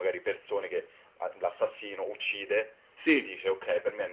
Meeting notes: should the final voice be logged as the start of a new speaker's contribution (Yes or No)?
No